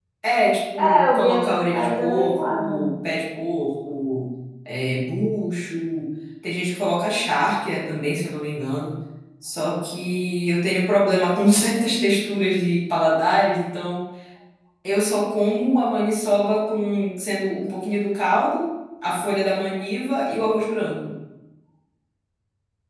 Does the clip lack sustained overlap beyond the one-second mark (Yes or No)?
No